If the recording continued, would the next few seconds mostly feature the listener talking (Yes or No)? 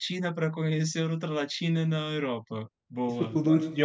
Yes